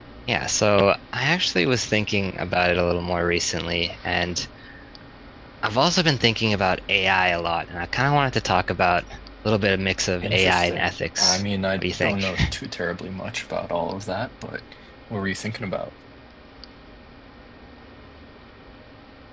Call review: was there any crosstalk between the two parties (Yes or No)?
Yes